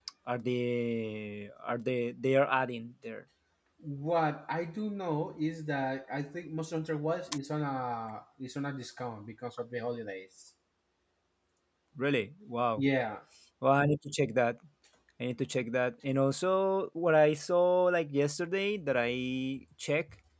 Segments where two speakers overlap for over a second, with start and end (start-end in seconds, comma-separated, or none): none